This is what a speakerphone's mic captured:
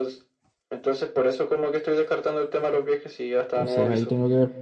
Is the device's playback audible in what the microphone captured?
Yes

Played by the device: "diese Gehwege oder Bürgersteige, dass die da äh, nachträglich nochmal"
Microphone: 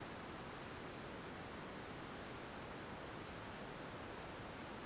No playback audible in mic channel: Yes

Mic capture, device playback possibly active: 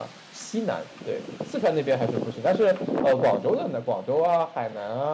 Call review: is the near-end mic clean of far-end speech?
Yes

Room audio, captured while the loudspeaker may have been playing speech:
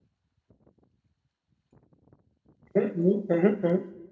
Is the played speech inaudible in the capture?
Yes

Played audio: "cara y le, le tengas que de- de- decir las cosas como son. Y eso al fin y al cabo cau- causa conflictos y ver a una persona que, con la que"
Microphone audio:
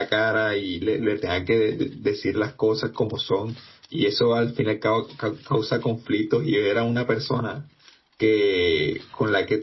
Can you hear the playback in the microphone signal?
Yes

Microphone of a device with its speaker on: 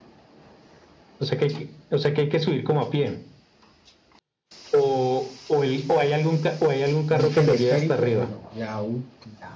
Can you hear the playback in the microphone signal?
Yes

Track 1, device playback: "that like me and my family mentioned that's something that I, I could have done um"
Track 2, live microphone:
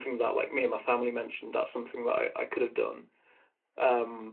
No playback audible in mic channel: No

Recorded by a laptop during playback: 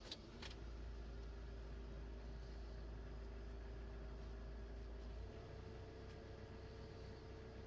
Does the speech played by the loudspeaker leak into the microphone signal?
No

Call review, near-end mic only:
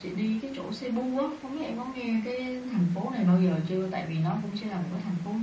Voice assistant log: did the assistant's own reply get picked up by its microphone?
Yes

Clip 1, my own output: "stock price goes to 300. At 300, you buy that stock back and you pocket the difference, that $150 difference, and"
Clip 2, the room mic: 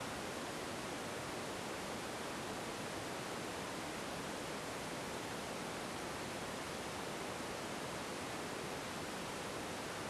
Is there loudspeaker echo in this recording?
No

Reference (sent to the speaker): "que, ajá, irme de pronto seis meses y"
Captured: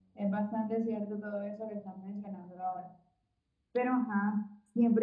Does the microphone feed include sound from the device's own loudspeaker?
No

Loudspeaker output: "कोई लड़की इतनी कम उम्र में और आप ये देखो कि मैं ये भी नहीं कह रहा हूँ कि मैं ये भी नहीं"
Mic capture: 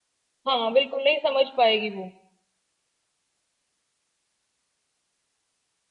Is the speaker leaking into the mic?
No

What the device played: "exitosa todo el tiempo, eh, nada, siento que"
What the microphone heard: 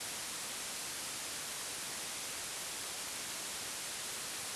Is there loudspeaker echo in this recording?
No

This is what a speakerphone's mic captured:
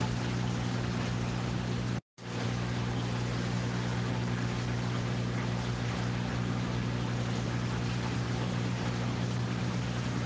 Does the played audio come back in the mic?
No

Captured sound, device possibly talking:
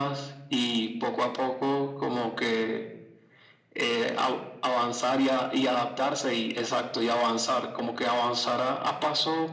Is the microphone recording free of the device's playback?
No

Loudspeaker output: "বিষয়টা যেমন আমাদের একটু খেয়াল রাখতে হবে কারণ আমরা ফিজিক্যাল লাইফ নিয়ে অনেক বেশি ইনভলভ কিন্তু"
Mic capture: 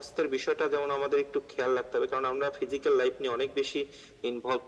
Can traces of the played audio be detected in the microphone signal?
Yes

